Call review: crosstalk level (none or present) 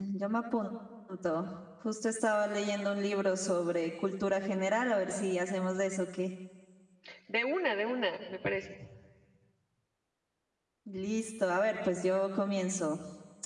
none